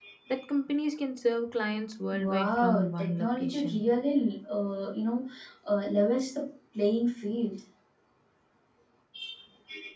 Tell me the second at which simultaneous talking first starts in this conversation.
2.1 s

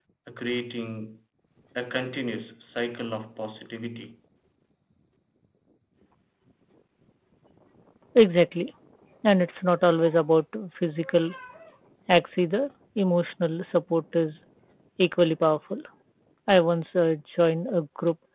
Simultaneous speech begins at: none

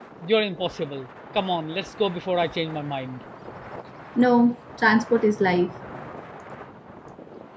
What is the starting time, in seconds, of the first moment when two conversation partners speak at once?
none

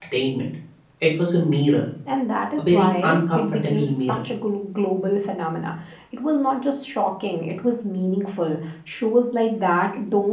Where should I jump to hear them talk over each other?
2.6 s

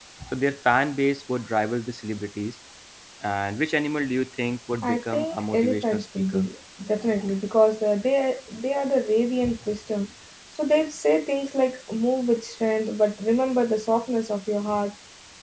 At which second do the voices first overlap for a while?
4.8 s

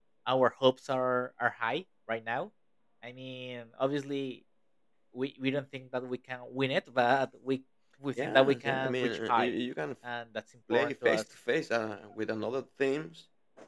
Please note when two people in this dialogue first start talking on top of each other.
8.2 s

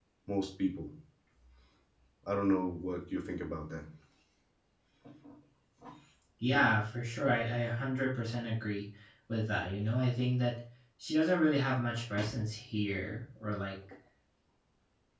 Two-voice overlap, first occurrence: none

